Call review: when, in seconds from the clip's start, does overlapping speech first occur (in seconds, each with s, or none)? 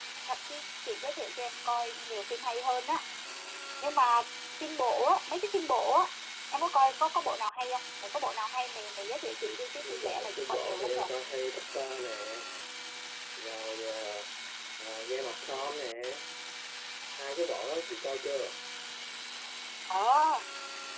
9.8 s